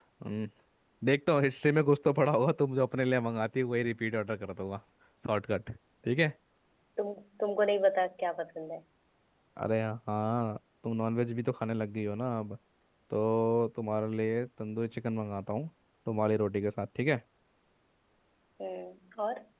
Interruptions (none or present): none